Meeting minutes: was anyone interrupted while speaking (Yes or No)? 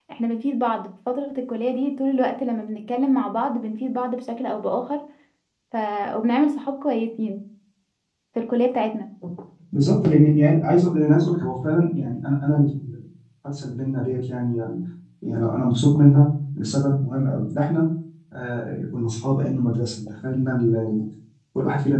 No